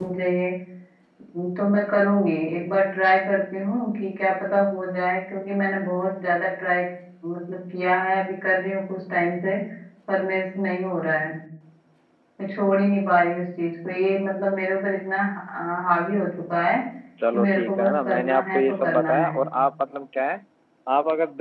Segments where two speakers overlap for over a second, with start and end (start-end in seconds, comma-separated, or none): 17.3-19.3